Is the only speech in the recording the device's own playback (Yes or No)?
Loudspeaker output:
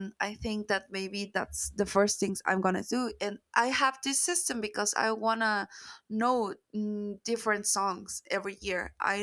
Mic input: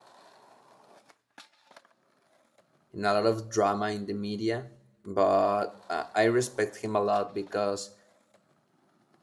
No